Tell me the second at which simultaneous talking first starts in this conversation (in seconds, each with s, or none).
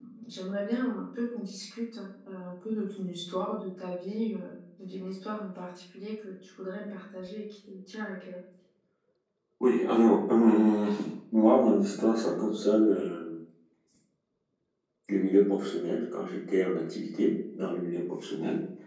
none